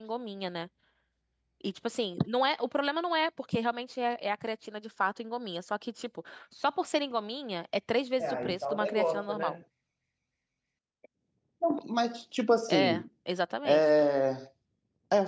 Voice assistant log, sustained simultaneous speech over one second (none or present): present